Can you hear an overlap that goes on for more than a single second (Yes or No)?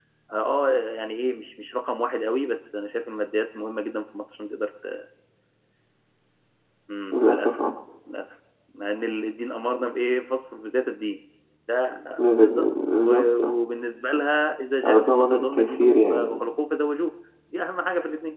Yes